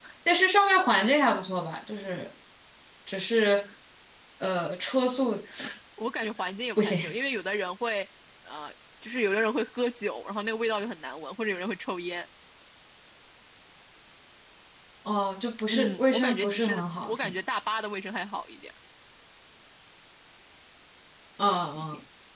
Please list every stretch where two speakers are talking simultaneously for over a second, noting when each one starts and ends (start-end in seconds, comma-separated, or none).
15.7-17.3